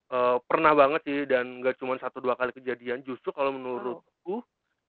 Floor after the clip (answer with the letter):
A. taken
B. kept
B